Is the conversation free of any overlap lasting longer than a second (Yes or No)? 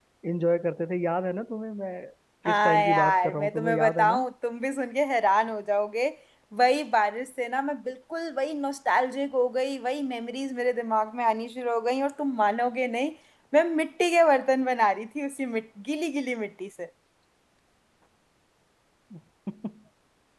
No